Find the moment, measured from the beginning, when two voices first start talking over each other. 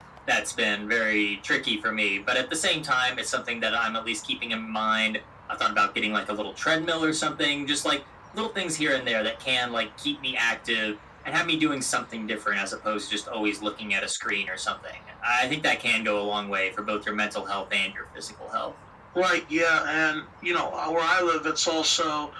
none

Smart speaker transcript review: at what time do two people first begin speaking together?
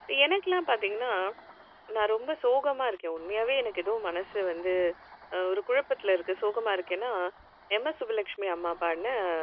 none

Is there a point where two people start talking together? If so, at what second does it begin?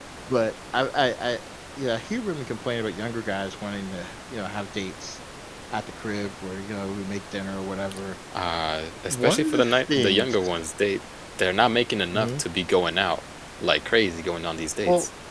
9.1 s

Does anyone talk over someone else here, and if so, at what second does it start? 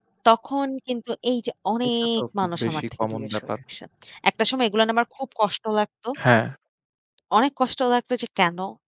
2.0 s

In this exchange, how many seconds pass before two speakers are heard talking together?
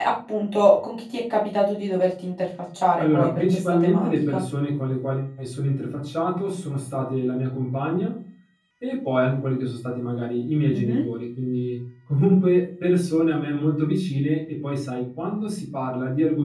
3.0 s

